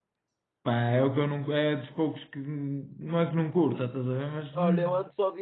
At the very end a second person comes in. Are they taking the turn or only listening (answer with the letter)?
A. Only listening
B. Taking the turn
B